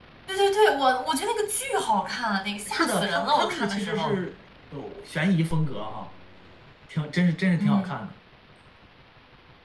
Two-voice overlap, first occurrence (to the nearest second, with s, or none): 3 s